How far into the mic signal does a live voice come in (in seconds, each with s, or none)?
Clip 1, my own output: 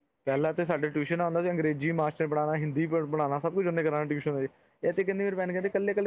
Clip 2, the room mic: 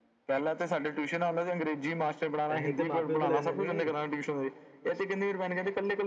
2.5 s